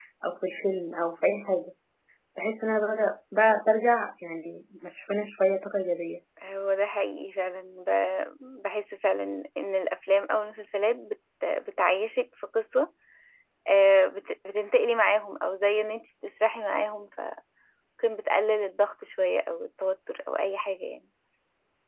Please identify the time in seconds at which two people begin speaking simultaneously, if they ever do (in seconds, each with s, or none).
none